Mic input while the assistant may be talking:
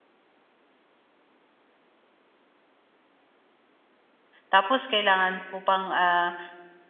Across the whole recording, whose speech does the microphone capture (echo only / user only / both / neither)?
user only